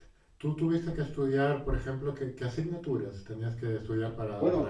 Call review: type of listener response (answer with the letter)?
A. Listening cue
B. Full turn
B